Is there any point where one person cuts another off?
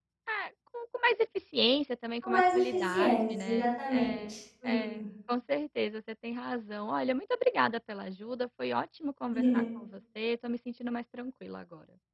Yes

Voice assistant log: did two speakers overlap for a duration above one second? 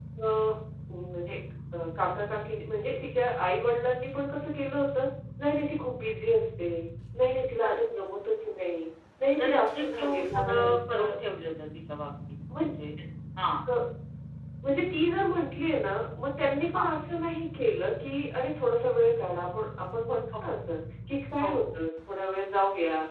Yes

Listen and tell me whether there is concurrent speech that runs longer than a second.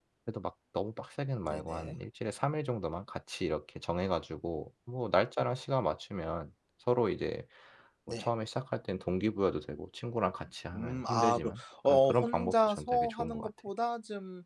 Yes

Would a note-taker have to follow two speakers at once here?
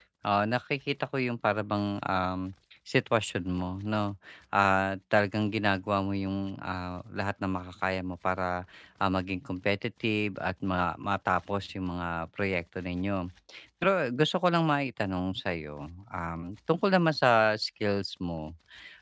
No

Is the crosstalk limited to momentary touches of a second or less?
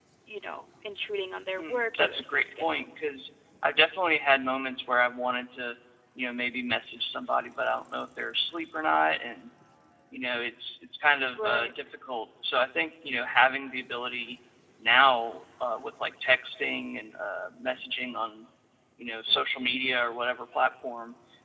No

